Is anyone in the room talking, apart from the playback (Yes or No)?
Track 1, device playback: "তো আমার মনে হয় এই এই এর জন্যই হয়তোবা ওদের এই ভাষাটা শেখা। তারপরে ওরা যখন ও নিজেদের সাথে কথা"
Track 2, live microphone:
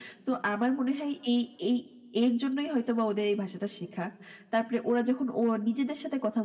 No